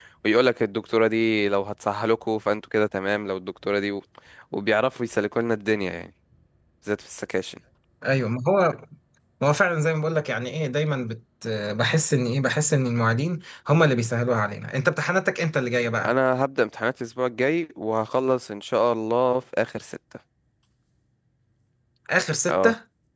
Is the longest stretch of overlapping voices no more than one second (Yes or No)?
Yes